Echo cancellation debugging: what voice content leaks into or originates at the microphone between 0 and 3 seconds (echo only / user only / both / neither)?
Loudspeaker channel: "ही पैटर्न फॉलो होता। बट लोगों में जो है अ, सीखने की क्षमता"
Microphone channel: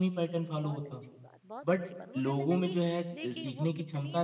both